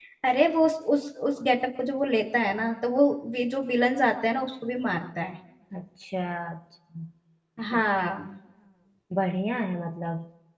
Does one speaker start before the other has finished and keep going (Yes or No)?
No